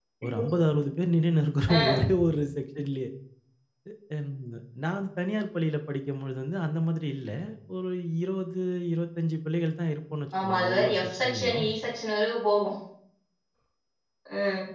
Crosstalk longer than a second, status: present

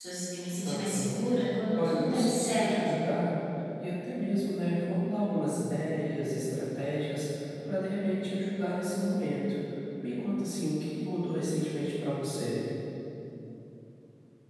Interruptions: present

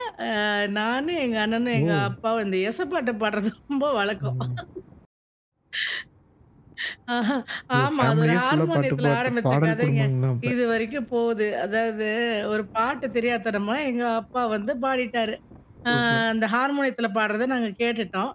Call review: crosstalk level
present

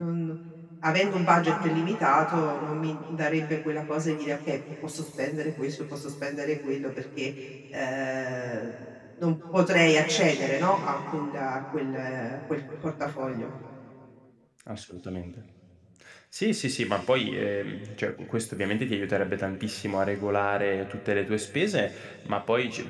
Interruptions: none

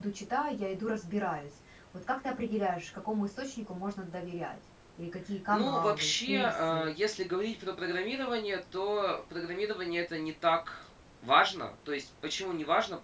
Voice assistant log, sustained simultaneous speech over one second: present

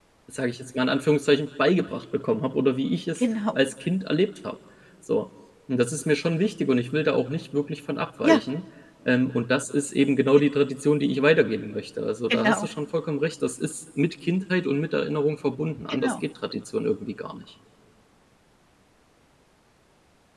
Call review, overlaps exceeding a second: none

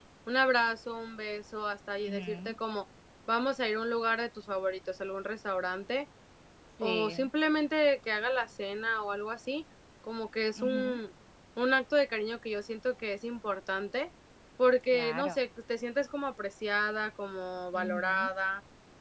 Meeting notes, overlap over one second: none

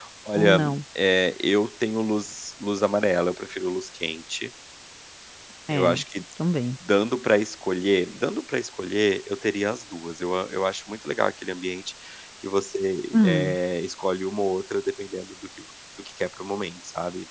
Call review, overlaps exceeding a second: none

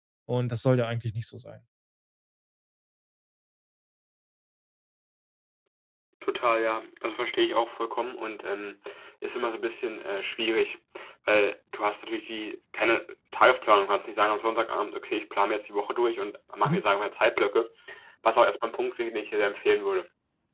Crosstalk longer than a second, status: none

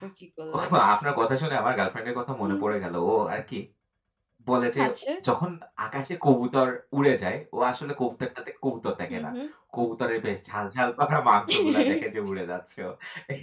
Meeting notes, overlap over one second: none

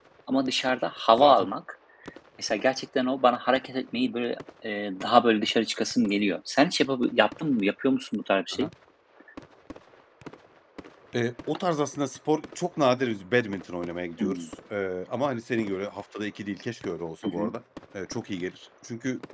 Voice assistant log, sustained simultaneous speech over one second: none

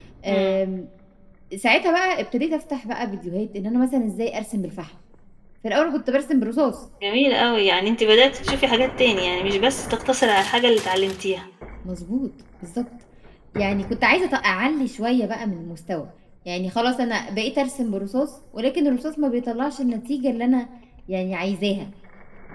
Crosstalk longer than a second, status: none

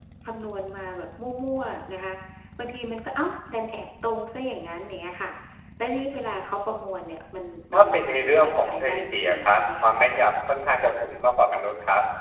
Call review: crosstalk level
present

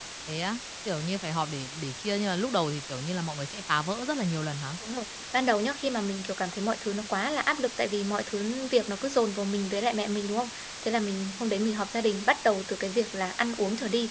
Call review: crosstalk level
none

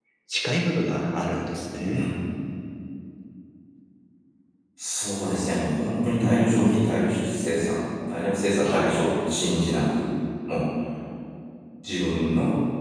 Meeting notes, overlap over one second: none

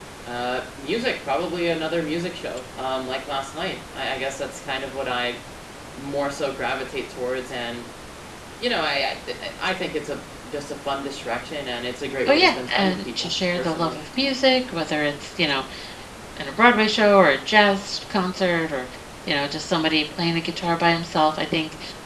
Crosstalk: present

